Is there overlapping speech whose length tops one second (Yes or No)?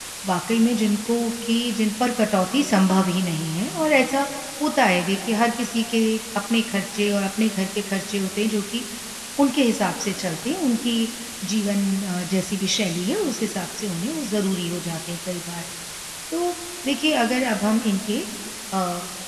No